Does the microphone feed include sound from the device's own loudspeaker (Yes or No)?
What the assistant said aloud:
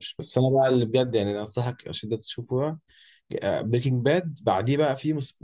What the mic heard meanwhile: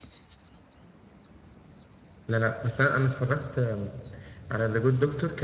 No